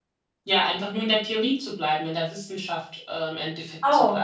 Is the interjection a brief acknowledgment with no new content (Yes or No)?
No